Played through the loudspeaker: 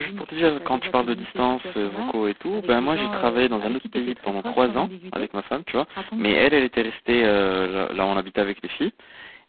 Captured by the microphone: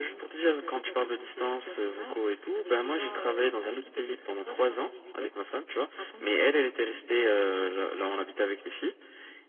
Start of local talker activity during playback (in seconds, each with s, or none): none